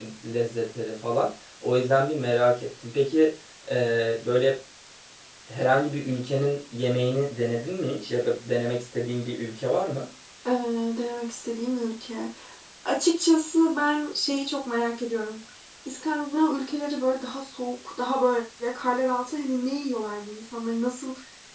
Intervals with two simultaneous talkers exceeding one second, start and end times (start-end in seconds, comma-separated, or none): none